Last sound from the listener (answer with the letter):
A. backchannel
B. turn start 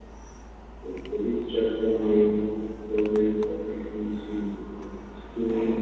A